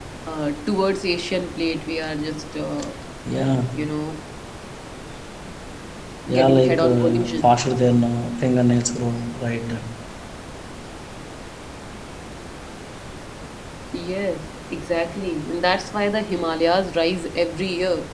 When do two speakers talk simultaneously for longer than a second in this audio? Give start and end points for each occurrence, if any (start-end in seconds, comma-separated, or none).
6.3-8.0